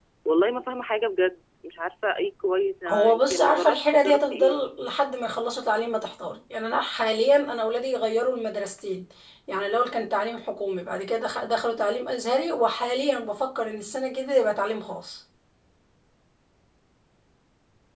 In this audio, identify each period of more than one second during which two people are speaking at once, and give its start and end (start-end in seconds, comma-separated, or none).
2.9-4.5